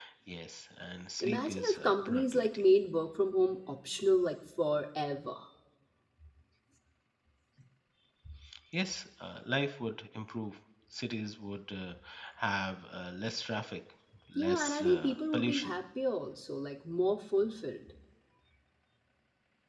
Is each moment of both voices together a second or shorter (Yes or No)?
No